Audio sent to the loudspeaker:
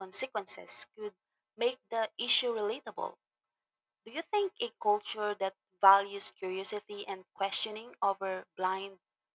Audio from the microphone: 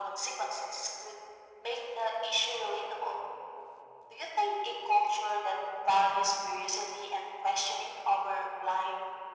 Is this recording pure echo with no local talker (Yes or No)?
Yes